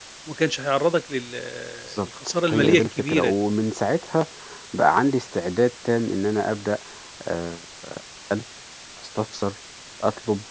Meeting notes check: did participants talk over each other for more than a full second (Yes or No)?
Yes